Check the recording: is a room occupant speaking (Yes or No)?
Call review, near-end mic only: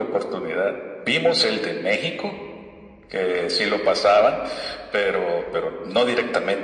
No